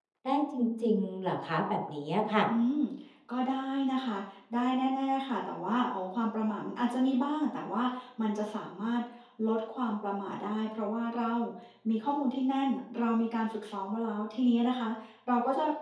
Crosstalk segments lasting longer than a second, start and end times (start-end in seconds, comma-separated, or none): none